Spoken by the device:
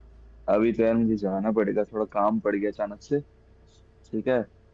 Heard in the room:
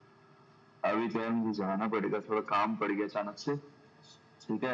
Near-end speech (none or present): none